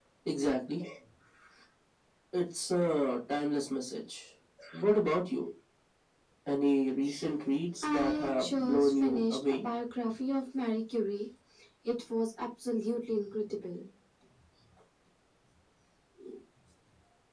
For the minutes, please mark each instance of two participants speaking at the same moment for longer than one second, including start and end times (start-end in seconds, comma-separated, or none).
7.8-9.7